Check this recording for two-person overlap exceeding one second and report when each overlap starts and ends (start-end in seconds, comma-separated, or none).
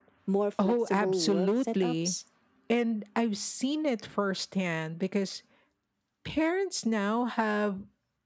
0.6-2.1